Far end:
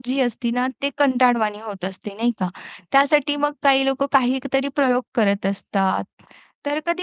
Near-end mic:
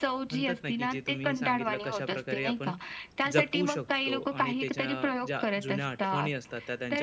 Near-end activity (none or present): present